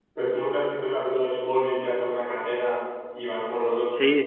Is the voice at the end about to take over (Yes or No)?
Yes